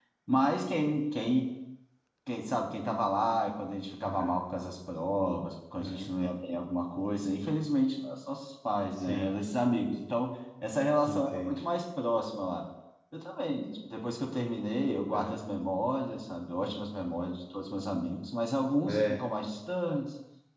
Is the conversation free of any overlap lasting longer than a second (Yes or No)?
Yes